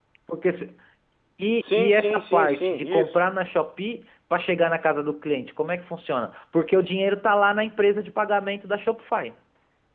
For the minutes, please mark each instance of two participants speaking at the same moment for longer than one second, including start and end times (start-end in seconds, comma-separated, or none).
1.6-3.1